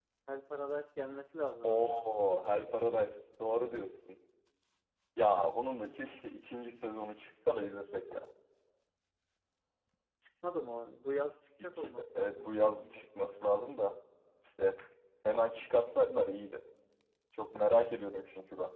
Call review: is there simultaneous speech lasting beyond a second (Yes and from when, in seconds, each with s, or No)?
Yes, from 1.6 s